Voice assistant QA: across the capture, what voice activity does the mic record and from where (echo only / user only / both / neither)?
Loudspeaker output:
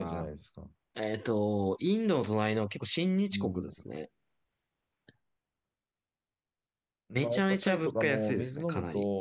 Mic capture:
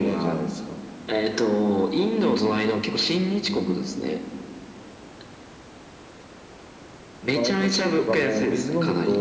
echo only